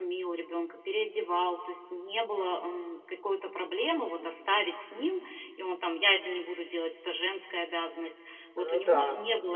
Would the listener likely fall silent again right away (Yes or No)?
Yes